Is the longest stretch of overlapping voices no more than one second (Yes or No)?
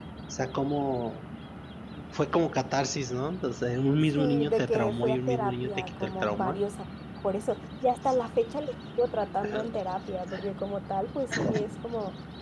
No